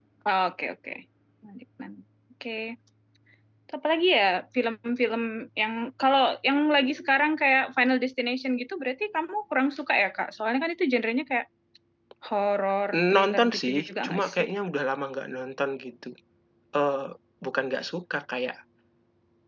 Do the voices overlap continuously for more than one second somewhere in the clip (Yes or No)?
Yes